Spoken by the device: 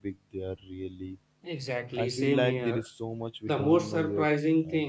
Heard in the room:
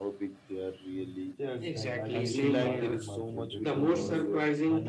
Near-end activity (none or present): present